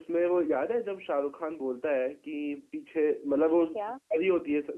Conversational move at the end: listening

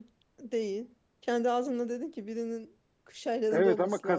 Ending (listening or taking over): taking over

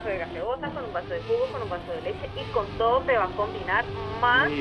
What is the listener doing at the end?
taking over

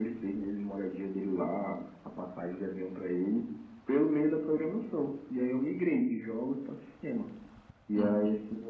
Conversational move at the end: listening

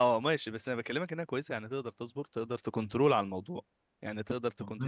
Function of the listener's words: taking over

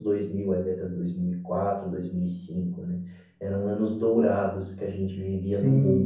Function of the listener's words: taking over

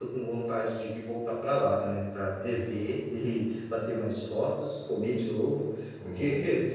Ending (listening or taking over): listening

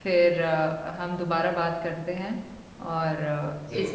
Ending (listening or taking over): listening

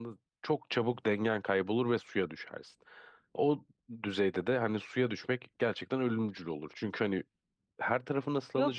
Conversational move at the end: taking over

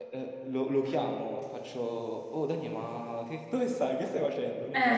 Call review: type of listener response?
listening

